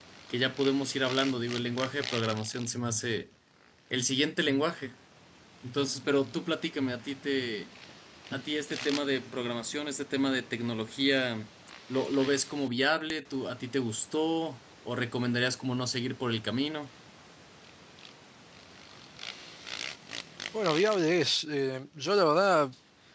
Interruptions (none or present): none